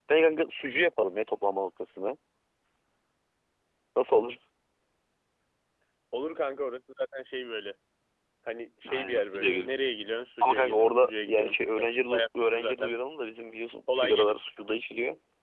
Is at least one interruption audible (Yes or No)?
Yes